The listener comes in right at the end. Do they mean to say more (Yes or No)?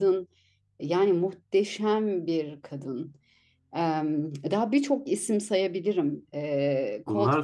Yes